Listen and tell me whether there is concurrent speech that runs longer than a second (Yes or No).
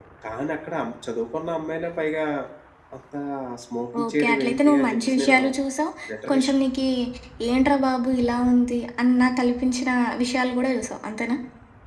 Yes